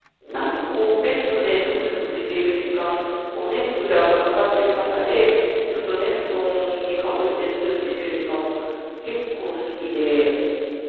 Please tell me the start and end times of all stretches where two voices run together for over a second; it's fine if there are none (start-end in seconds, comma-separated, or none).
none